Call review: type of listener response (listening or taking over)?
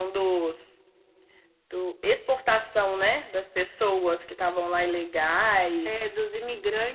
taking over